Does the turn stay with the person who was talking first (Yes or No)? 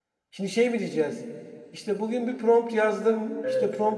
Yes